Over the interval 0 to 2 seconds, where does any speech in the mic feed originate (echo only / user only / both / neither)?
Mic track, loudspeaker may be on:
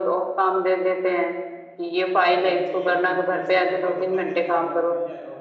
echo only